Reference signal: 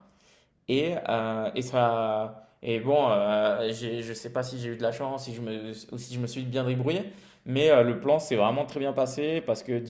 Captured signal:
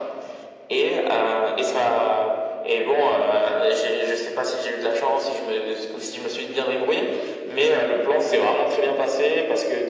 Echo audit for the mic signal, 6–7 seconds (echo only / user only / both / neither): echo only